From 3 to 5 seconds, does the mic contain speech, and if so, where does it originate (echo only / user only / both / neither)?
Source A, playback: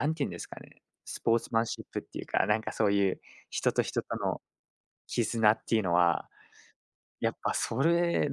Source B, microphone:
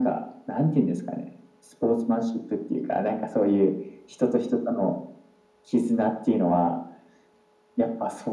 echo only